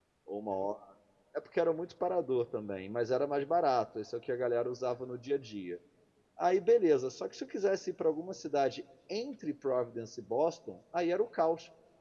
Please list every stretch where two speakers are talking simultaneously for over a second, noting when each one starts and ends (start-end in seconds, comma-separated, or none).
none